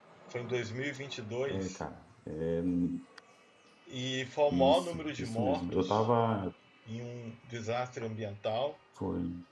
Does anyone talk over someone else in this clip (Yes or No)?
Yes